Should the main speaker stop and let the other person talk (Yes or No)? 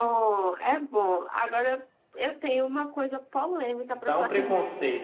Yes